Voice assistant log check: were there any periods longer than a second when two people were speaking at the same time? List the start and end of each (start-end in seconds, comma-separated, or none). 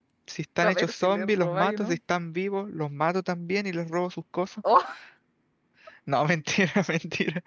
0.6-2.0